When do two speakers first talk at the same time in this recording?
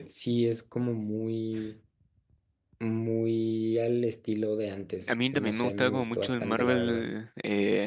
5.0 s

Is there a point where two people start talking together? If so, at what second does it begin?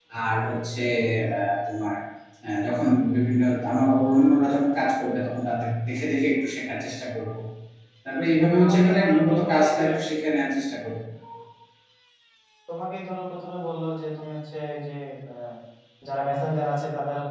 8.6 s

